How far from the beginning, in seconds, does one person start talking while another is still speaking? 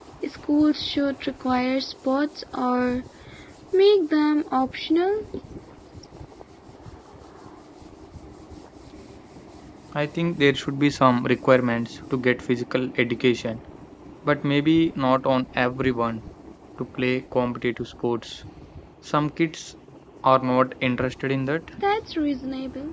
none

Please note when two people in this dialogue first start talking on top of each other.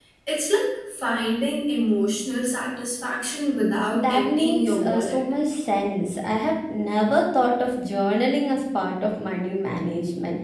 3.9 s

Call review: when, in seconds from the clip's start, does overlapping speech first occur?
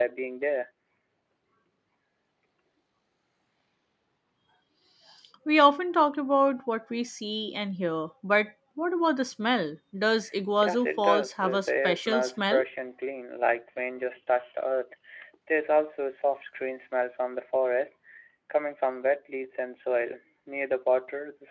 10.6 s

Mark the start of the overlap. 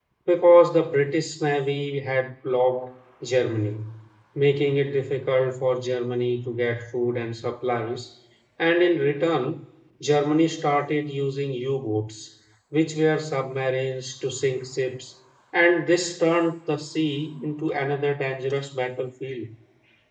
none

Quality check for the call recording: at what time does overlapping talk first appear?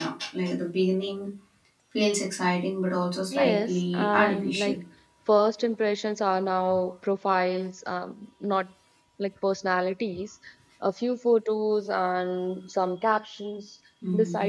3.3 s

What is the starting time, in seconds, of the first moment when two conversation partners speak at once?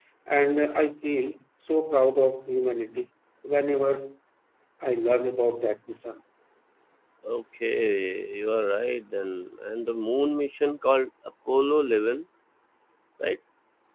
none

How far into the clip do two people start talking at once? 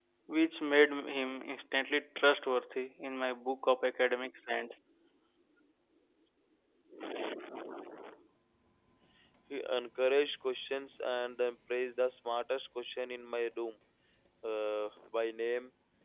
none

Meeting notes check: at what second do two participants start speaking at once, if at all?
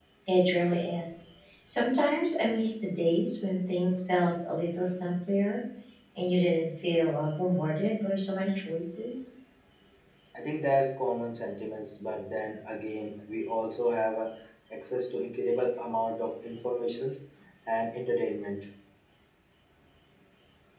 none

